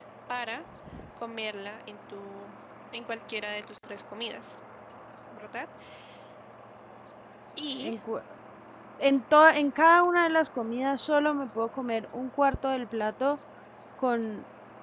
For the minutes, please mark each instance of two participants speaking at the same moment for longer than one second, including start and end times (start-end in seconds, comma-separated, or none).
none